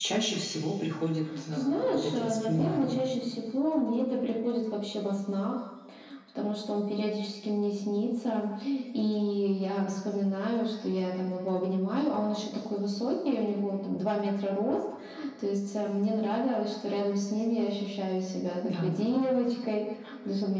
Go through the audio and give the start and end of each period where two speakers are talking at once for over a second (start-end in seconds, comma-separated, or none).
1.5-3.0